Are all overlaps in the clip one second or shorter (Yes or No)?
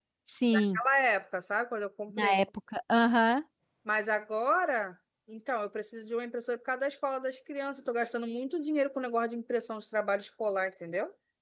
Yes